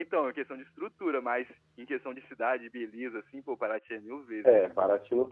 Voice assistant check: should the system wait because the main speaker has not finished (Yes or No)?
No